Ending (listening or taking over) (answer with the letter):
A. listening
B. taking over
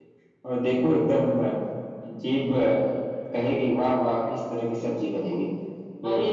B